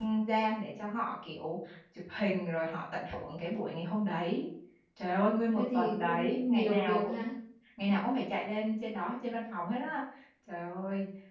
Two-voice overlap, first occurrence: 5.5 s

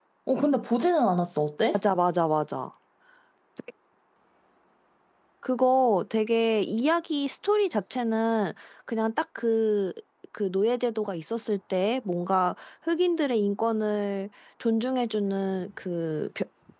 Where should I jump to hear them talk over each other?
none

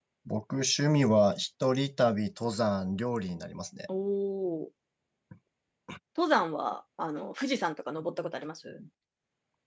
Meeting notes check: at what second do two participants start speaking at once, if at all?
none

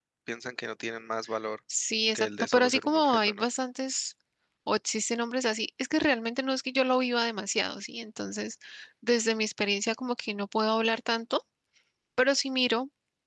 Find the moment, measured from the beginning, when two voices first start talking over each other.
2.1 s

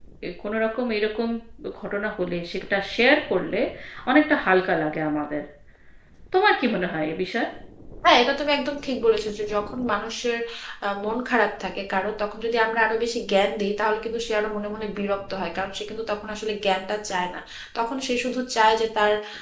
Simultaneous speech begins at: none

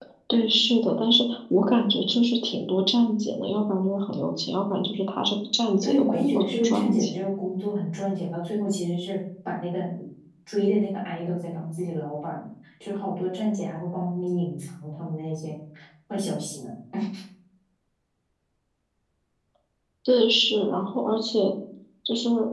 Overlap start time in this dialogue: 5.8 s

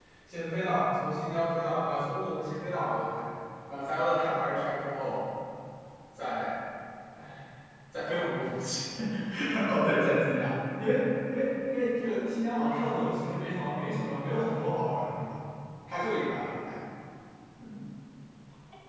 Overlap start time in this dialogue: none

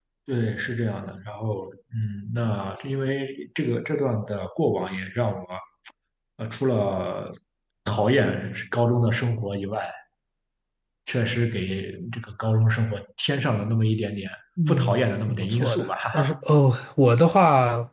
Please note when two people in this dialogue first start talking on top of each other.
14.6 s

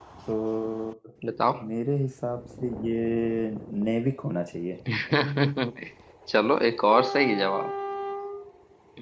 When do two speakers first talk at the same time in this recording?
none

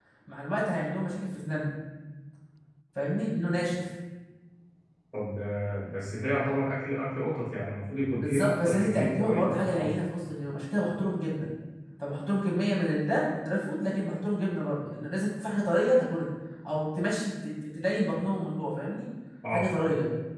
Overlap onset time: 8.2 s

